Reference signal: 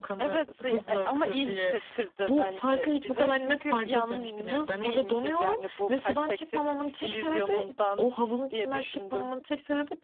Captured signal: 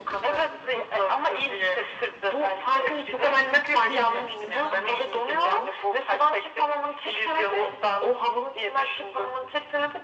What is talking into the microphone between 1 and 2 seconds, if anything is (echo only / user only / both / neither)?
echo only